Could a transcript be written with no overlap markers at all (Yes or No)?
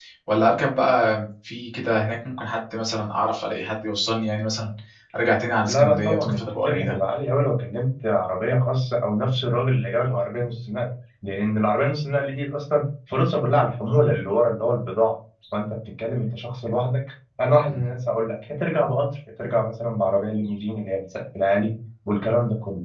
No